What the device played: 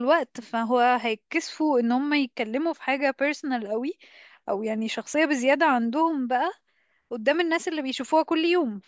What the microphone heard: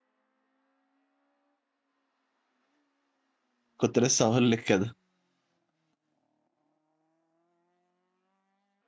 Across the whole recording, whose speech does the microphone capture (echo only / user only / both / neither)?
user only